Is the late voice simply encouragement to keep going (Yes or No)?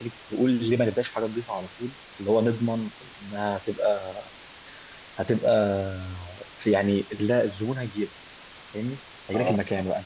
Yes